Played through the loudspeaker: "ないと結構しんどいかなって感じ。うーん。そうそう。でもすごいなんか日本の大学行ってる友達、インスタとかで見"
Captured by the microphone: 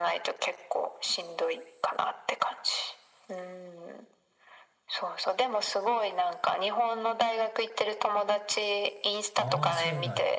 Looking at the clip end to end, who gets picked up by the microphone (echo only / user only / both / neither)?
both